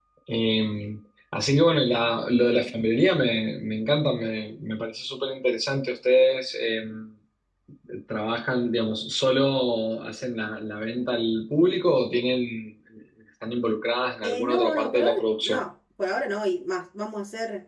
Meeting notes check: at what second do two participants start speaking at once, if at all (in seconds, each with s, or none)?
14.2 s